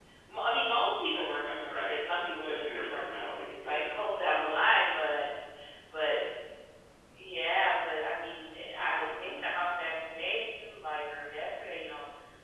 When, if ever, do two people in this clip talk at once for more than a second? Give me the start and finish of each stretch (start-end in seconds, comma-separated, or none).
1.1-4.0